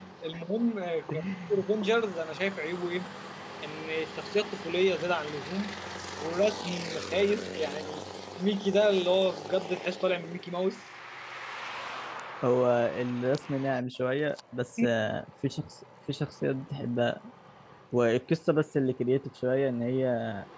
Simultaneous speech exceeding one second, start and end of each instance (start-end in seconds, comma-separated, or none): none